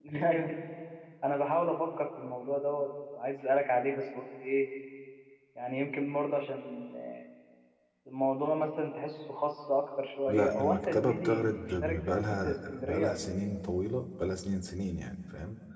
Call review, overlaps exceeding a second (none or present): present